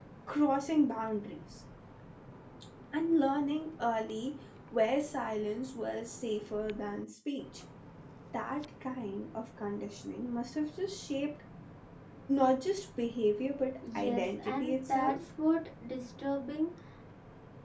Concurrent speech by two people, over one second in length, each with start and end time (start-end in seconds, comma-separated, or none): 14.0-15.2